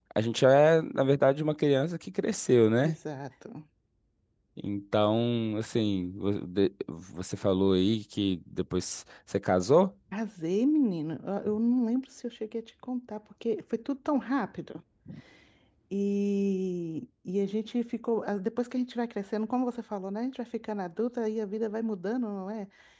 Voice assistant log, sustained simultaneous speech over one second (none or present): none